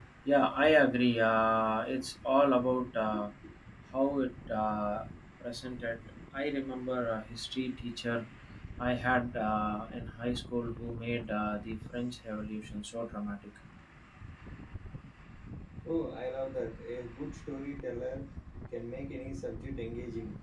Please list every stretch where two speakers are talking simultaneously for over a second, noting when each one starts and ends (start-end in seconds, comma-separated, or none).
none